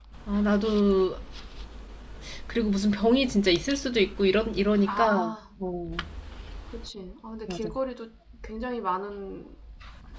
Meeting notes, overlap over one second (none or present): none